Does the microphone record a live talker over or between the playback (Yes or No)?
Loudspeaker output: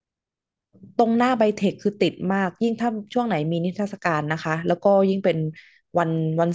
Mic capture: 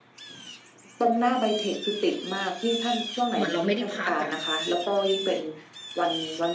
Yes